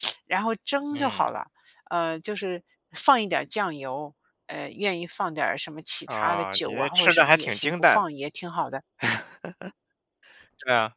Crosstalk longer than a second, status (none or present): present